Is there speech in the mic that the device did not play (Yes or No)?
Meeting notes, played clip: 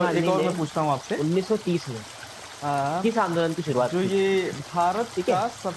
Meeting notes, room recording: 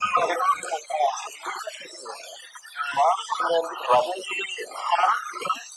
No